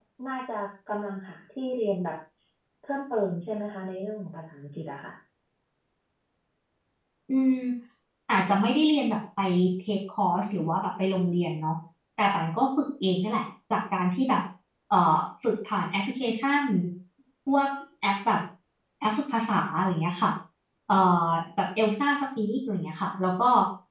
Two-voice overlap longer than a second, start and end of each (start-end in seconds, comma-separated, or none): none